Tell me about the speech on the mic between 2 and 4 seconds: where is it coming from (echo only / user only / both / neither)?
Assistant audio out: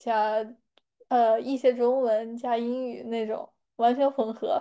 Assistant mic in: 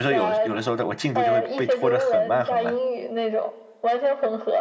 both